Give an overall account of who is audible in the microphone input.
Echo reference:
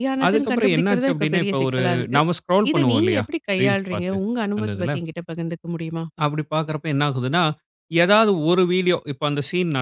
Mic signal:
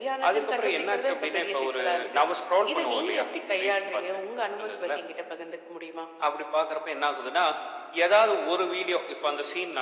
echo only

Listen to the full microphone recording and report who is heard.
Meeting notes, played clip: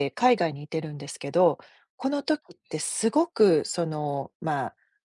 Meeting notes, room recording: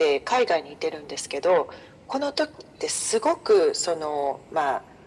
echo only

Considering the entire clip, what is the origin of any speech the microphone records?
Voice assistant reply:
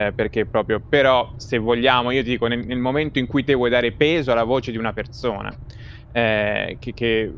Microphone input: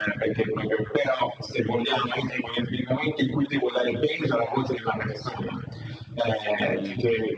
both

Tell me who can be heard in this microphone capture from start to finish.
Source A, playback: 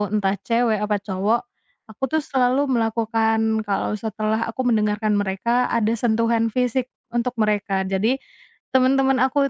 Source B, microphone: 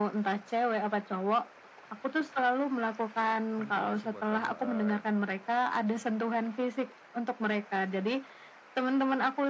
both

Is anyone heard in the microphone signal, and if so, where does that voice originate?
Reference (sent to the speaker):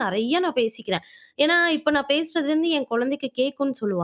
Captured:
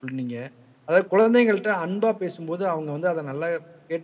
user only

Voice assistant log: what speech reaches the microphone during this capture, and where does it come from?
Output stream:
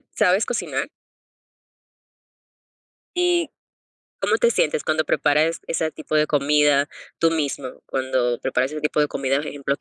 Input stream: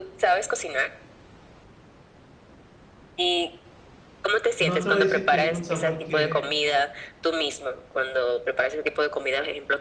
both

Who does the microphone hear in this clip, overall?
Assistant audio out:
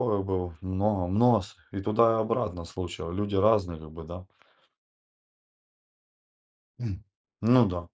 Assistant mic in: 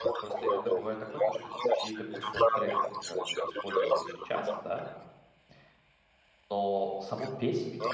both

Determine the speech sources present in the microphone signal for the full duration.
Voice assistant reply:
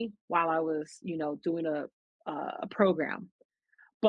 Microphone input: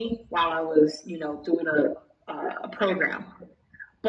echo only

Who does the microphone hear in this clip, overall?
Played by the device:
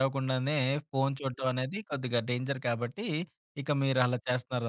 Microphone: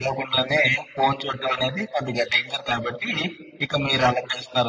echo only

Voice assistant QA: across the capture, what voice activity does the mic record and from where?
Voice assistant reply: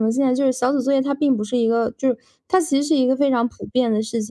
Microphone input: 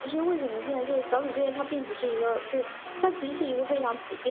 echo only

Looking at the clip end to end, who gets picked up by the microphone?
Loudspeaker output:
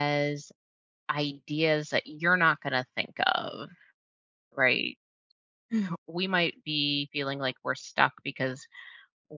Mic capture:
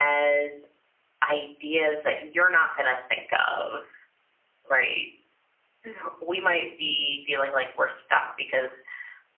echo only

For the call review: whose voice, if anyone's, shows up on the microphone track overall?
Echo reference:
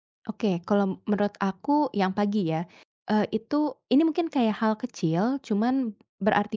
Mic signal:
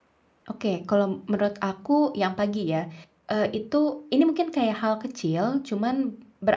echo only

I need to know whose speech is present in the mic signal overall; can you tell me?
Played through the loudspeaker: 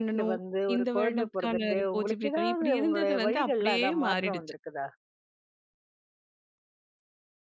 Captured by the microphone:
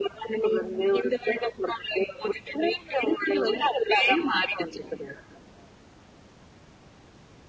echo only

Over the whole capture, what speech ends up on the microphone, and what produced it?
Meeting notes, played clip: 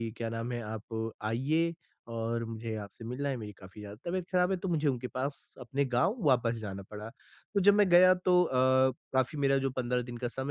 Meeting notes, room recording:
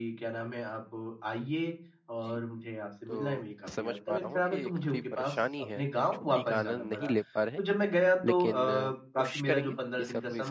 both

